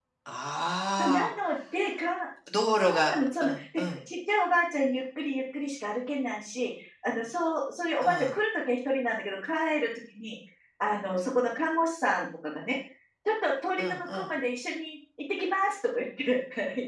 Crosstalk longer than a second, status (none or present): present